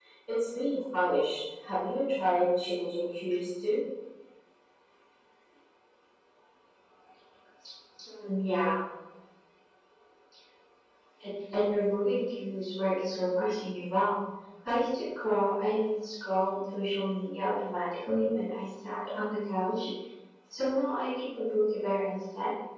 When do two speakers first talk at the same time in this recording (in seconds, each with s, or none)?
none